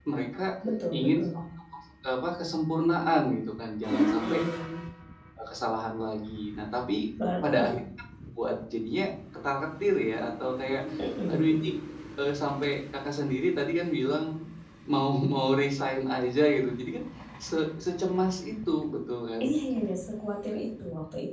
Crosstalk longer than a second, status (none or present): none